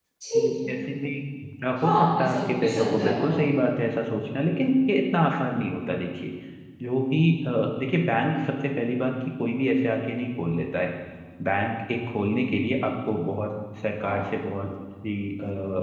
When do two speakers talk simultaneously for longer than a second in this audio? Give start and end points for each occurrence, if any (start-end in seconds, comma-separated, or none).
1.8-3.4